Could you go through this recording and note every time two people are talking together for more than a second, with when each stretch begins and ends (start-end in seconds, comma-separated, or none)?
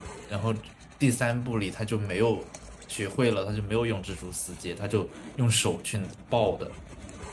none